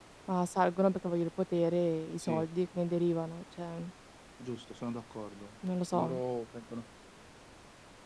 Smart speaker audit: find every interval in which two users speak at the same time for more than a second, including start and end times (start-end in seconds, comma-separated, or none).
none